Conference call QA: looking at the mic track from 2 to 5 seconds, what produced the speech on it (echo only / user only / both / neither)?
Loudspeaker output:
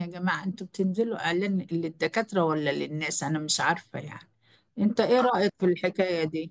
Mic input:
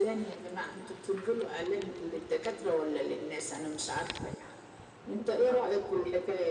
echo only